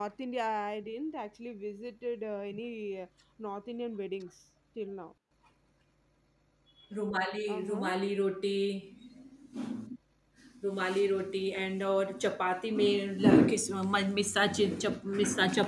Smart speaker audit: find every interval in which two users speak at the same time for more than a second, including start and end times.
none

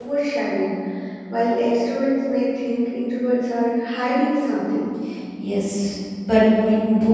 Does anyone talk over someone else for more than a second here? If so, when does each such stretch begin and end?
none

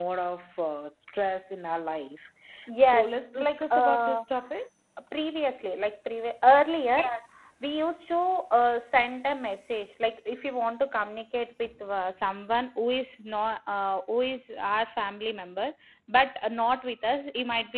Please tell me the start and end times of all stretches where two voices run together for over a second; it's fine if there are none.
2.9-4.2

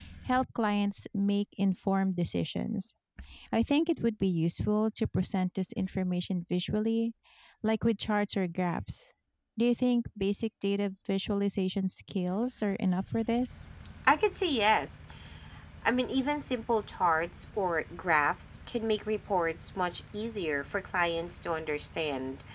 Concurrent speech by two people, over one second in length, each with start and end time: none

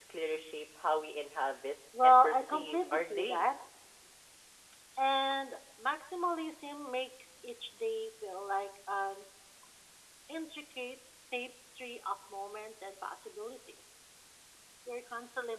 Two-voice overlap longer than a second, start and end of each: 2.0-3.5

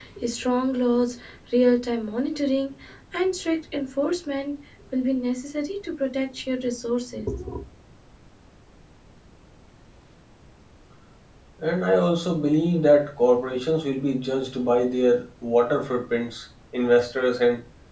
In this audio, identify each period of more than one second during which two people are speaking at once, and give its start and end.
none

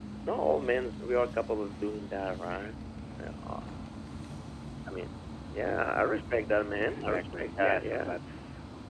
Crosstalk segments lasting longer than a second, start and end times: 6.9-8.1

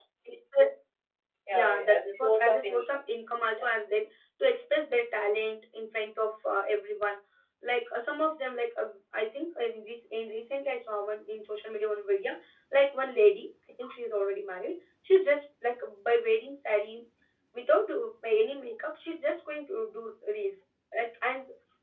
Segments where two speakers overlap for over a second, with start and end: 1.5-3.0

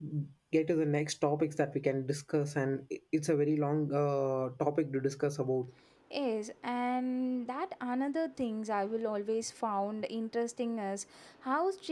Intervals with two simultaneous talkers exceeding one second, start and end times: none

